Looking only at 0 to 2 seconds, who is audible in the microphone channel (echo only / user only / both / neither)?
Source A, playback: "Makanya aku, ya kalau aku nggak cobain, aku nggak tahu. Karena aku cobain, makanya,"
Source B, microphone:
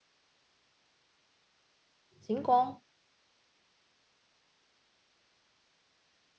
neither